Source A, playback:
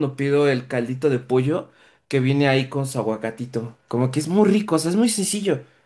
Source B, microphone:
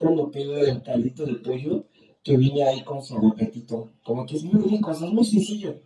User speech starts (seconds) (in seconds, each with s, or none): none